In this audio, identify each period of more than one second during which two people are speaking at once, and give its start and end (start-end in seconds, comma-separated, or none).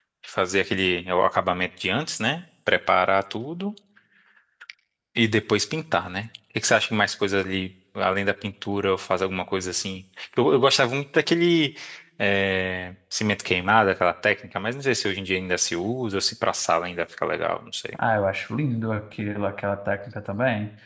none